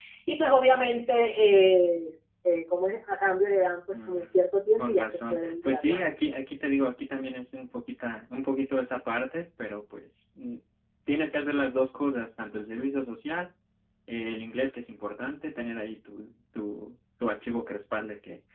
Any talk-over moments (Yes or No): Yes